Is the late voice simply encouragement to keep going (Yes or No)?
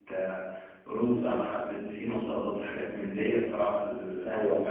No